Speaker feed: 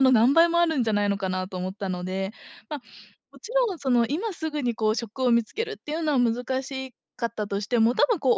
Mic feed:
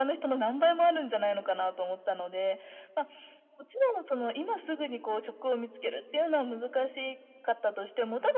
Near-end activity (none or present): none